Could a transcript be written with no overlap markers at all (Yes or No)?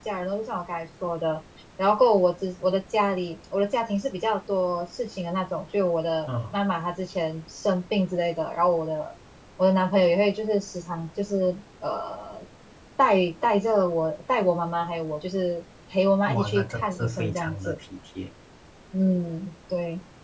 No